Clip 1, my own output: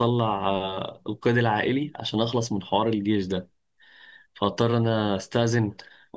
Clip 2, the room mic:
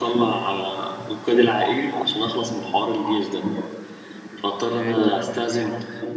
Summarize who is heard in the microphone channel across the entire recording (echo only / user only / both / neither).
both